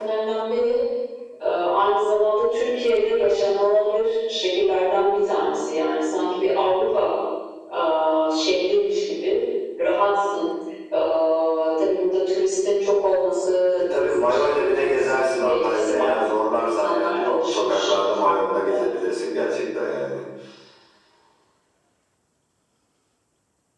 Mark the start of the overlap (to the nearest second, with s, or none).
14 s